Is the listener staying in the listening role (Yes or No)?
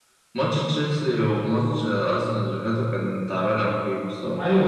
No